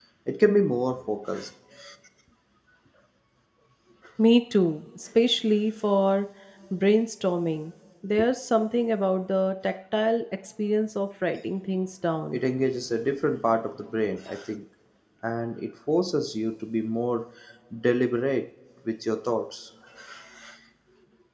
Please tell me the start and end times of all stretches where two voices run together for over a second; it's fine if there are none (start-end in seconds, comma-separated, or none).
none